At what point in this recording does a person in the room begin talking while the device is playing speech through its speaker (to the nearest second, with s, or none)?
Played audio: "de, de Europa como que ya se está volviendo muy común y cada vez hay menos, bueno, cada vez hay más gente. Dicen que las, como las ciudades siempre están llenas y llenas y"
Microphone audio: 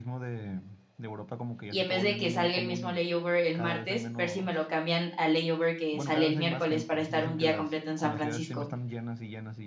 2 s